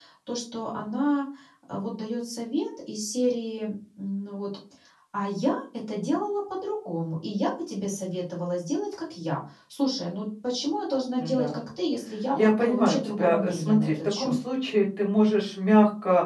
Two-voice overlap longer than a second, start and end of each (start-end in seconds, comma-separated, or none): 12.3-14.3